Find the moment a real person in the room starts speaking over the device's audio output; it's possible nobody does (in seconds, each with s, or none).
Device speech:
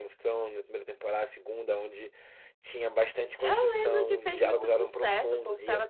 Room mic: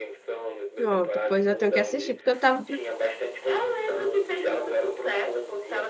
0.7 s